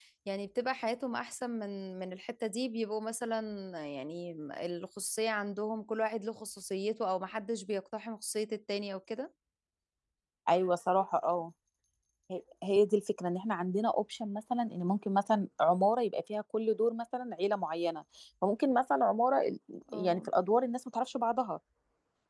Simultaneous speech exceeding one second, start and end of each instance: none

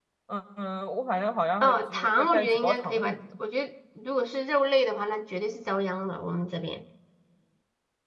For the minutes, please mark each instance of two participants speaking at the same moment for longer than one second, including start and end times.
1.6-3.2

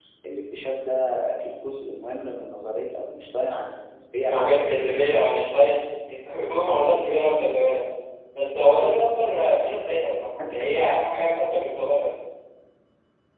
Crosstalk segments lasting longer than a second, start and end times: none

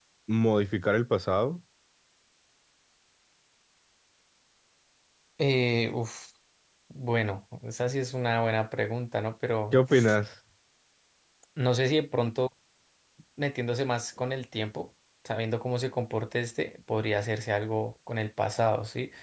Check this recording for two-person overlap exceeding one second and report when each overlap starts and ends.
none

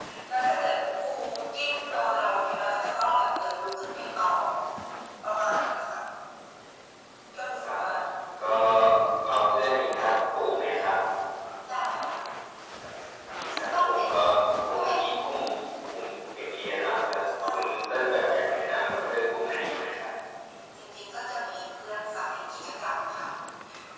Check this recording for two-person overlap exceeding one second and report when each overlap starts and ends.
none

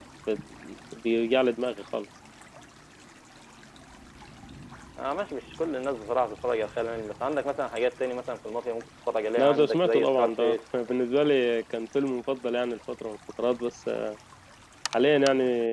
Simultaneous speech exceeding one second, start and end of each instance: 9.4-10.7

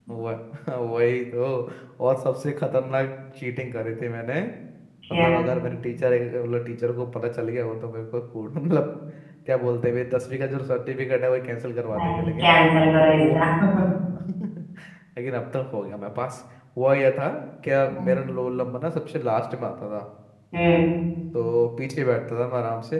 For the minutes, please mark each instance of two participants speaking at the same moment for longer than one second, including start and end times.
none

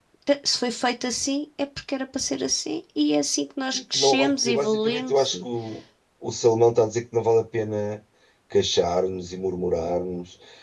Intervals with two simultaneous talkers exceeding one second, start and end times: 3.7-5.4

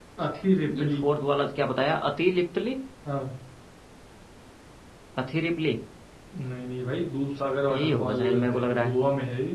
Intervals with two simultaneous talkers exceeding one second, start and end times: 7.7-8.9

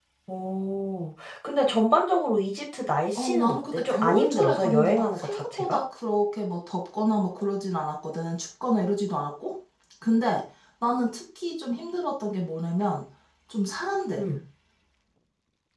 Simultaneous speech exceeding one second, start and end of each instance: 3.1-5.8

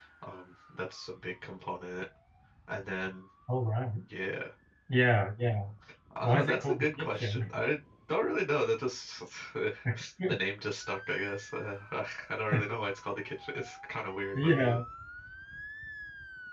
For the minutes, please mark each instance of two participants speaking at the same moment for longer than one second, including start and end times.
6.2-7.5

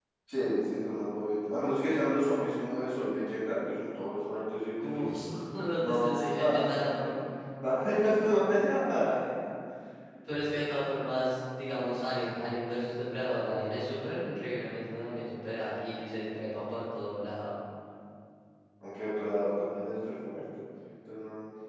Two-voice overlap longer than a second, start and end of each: 5.8-7.2

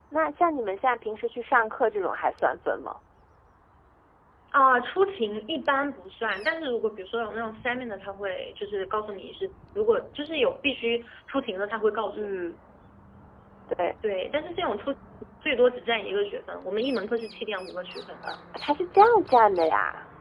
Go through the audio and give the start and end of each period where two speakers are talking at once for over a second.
none

